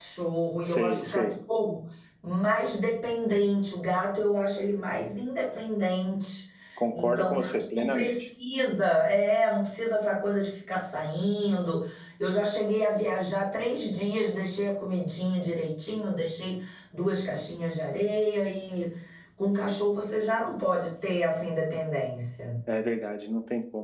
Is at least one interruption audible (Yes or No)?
Yes